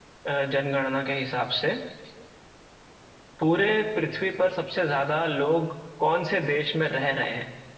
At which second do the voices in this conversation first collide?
none

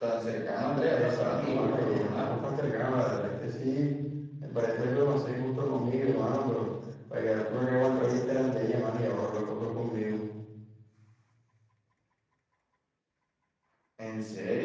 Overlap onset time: 0.9 s

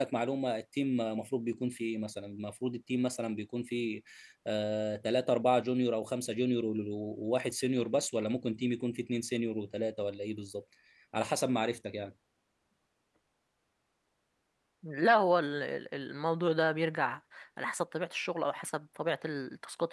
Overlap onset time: none

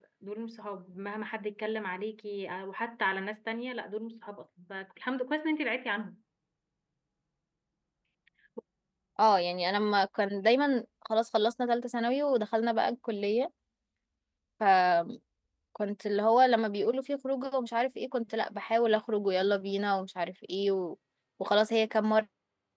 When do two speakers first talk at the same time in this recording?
none

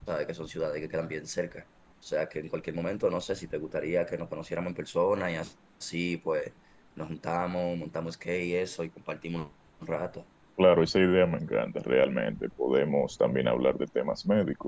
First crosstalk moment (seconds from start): none

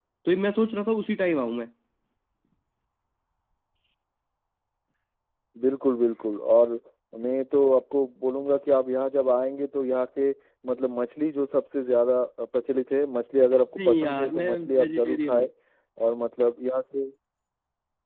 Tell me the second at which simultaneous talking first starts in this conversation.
13.8 s

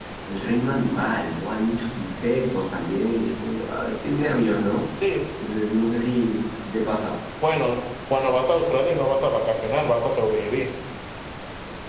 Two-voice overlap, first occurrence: none

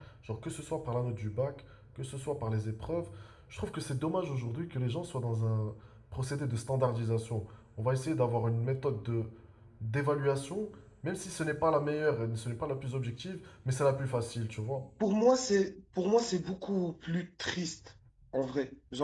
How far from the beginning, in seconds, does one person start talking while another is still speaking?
none

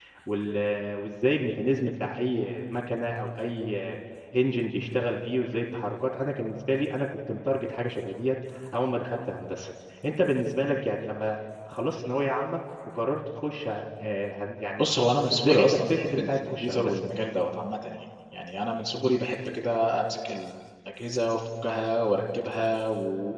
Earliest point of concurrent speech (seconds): 15.3 s

